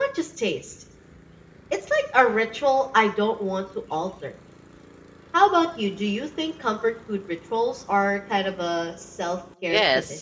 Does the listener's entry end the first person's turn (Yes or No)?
Yes